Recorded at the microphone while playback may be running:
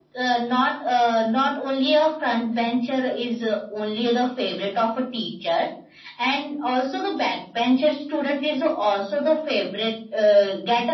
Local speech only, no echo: none

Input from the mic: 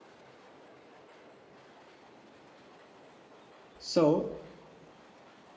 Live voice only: so

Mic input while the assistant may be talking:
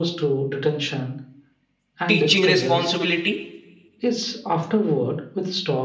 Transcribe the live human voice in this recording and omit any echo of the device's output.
teaching responsibility

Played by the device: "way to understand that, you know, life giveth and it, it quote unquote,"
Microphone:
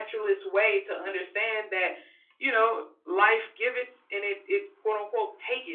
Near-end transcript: none

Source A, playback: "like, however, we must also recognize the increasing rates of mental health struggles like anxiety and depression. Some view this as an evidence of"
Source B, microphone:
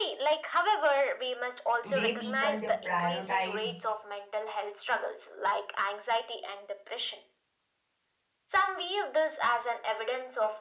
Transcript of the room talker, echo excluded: Today, people they prioritize

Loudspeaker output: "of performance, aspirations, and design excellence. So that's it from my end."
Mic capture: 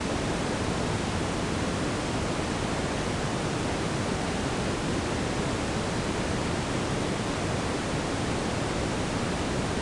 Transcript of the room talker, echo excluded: none

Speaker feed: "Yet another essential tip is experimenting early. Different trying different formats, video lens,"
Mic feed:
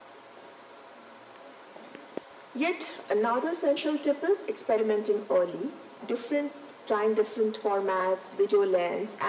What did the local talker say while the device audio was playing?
none

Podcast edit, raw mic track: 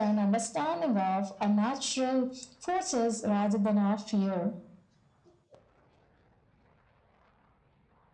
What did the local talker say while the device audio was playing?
none

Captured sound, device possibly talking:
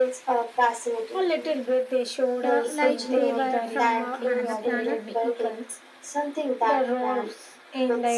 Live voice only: uh, like they were from uh, another planet.

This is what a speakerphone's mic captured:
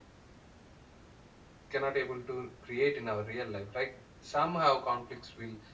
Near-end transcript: cannot able to create in our real life right somehow conflicts will

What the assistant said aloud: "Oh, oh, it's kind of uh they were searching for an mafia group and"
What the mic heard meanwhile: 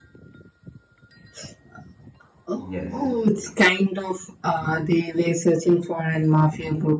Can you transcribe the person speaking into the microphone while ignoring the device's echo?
Yes.

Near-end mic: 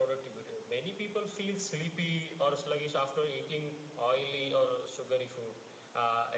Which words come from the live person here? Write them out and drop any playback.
none

